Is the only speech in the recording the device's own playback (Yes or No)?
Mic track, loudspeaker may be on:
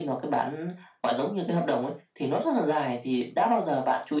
Yes